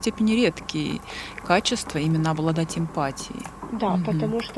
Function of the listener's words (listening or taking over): taking over